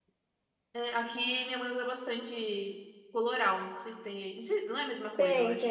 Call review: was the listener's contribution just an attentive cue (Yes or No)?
No